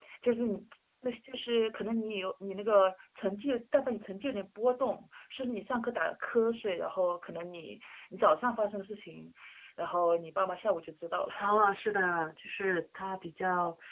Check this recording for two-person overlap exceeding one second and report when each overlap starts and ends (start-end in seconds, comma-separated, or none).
none